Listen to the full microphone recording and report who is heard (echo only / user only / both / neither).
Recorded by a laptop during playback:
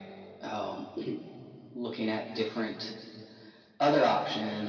echo only